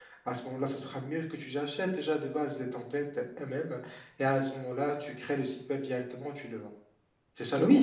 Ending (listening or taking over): taking over